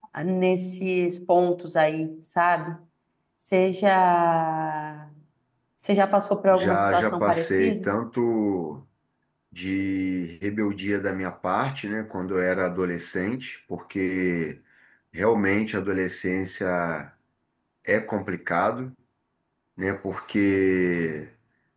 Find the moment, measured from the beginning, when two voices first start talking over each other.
7 s

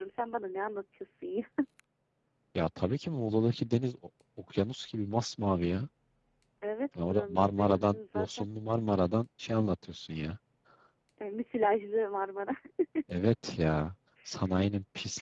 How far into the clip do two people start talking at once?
7 s

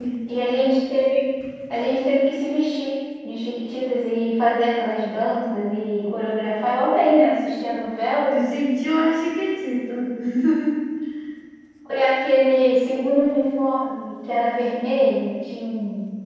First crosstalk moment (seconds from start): none

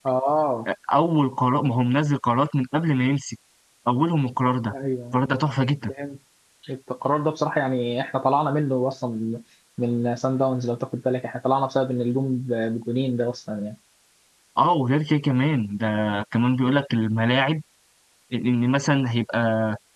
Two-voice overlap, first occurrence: none

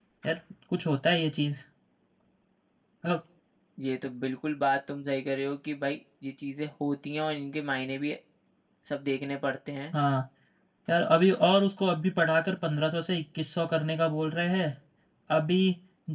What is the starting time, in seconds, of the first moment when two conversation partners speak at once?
none

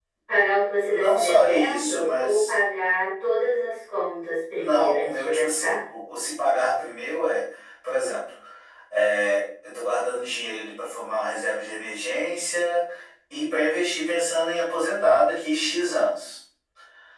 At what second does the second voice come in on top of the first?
1 s

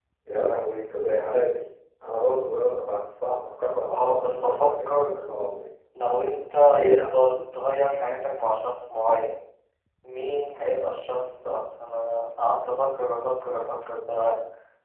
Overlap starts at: 4 s

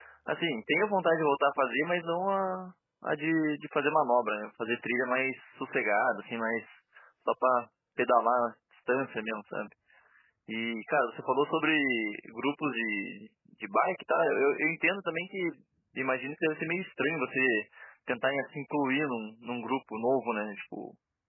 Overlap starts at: none

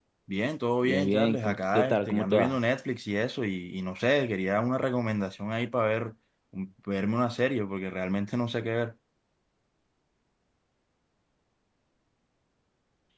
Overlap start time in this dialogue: 1 s

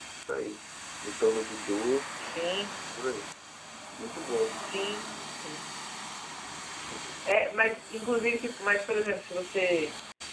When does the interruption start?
none

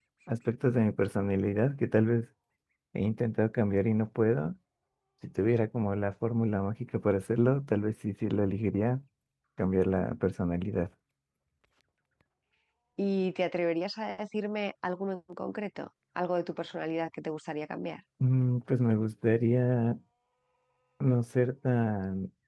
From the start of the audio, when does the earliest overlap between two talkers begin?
none

